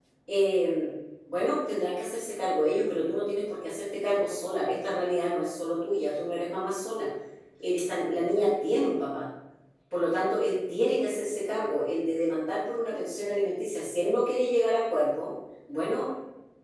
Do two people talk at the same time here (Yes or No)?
No